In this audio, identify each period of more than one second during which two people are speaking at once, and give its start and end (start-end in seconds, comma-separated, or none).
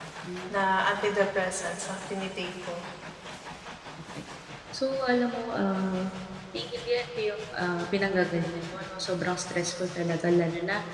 none